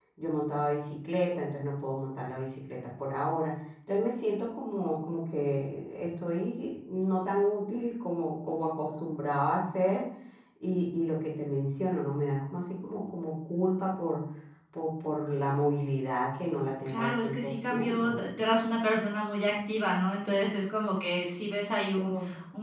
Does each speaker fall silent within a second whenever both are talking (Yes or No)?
No